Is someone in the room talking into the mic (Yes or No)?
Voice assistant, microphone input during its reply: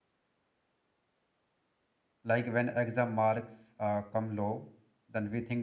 Yes